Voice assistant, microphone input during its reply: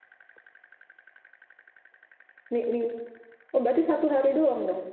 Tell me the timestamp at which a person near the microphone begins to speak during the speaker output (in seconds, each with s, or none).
2.5 s